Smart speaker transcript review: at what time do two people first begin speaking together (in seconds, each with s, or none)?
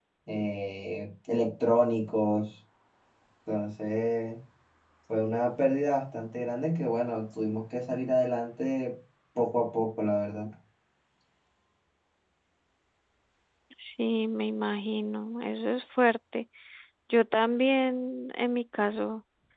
none